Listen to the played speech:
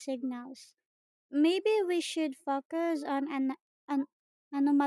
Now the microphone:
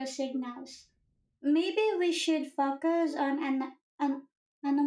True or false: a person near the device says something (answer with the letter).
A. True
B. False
B